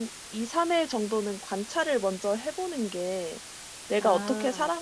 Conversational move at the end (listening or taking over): listening